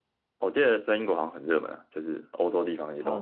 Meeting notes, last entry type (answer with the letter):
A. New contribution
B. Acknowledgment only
A